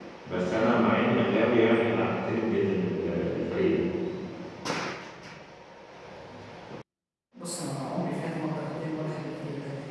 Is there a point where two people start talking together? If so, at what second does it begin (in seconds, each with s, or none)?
none